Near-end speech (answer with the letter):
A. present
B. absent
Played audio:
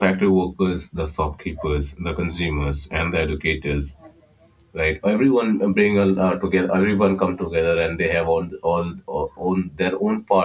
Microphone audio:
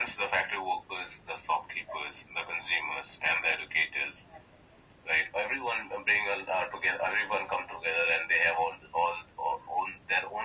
B